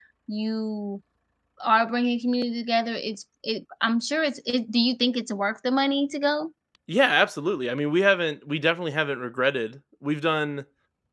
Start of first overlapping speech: none

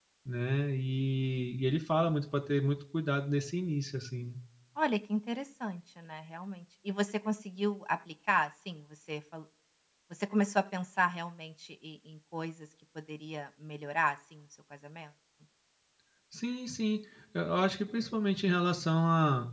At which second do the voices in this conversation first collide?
none

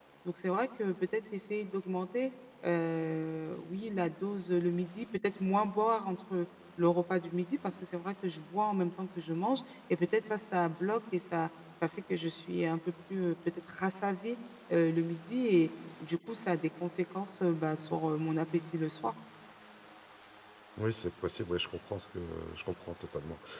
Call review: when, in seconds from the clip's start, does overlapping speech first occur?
none

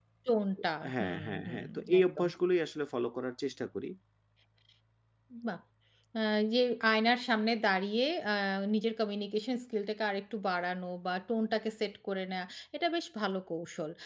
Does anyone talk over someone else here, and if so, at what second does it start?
0.9 s

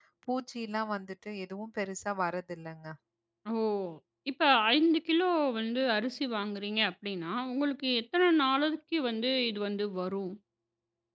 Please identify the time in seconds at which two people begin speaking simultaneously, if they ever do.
none

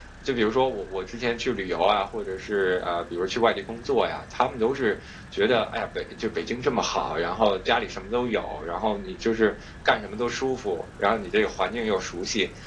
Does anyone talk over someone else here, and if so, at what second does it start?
none

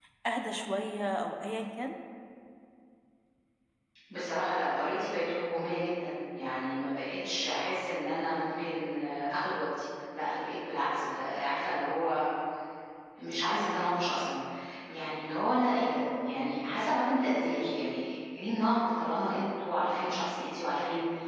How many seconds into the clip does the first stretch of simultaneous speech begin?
none

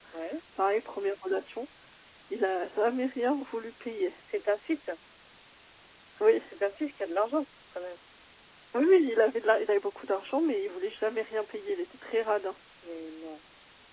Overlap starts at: none

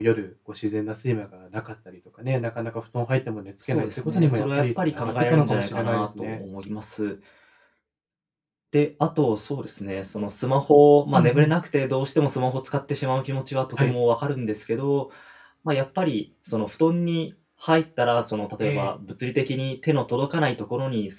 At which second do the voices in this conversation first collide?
3.7 s

